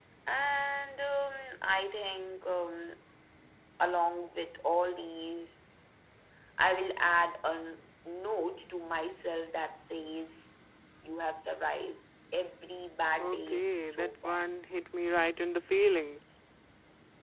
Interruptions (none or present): present